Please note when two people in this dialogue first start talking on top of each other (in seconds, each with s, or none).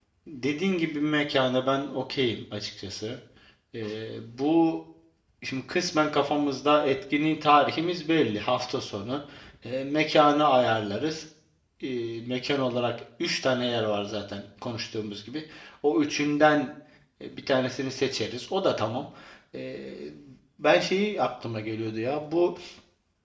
none